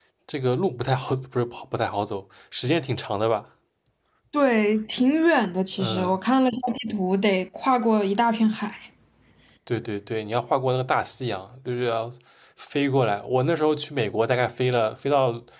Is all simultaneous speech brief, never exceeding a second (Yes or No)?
Yes